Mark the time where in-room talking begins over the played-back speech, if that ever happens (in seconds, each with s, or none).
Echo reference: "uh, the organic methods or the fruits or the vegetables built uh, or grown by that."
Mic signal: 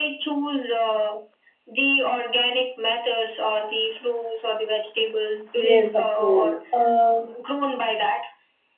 5.5 s